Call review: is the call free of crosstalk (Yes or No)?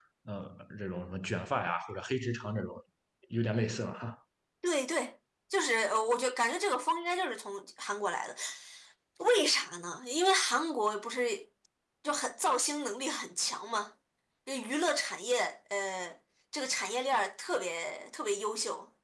Yes